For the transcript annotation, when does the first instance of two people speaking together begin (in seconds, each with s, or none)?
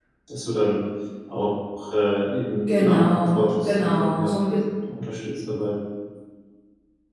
2.8 s